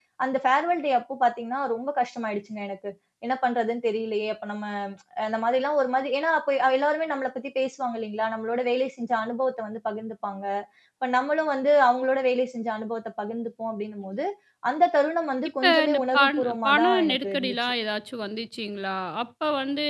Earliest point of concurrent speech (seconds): 16 s

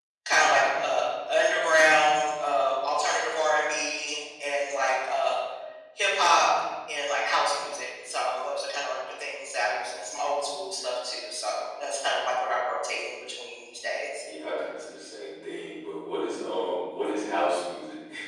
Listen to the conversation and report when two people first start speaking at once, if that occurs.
none

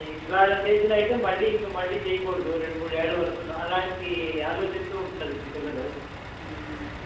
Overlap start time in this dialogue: none

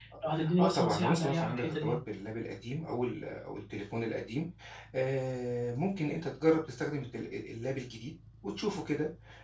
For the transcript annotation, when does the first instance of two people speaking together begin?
1 s

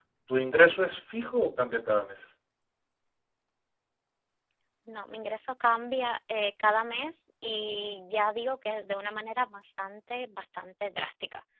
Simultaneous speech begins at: none

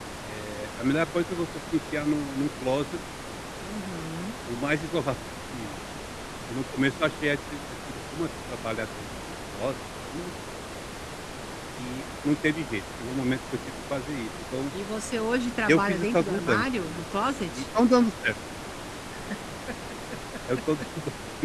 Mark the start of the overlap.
16 s

